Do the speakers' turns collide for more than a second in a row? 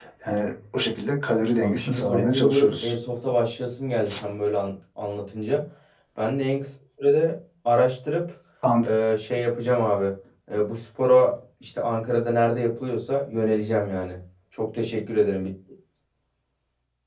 Yes, from 1.6 s

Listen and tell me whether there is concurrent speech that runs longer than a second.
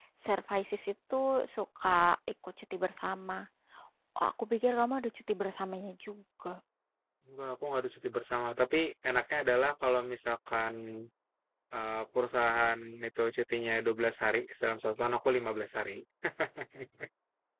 No

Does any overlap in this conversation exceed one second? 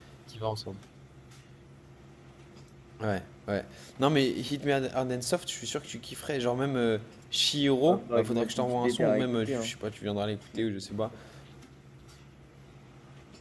Yes, from 7.9 s

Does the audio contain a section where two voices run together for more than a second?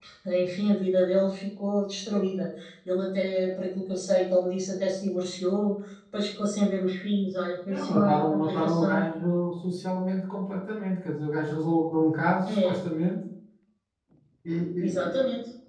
Yes, from 7.7 s

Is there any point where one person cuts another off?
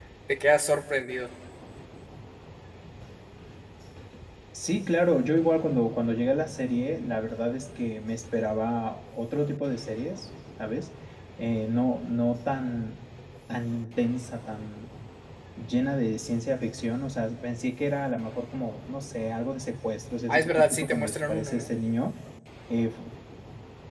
Yes, from 20.3 s

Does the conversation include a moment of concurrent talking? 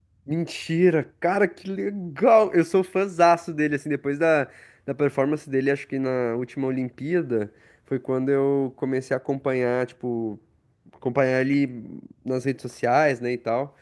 No

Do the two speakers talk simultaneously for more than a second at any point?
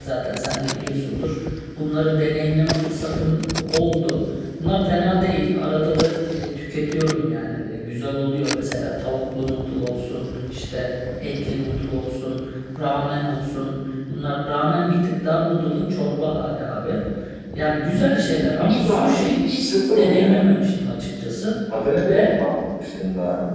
Yes, from 18.6 s

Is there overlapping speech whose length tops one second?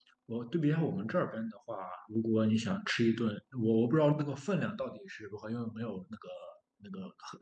No

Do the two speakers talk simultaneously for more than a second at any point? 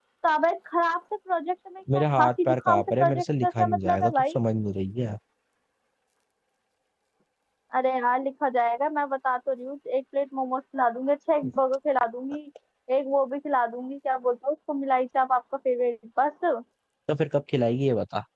Yes, from 1.9 s

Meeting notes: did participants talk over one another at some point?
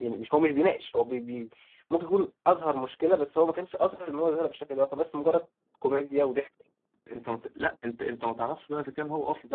No

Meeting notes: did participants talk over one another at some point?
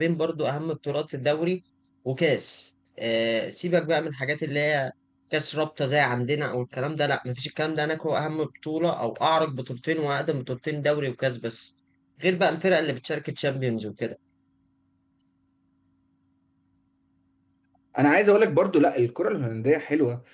No

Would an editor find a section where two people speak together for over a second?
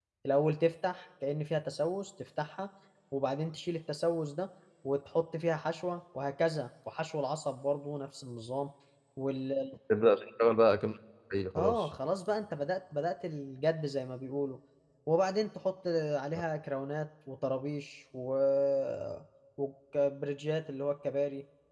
No

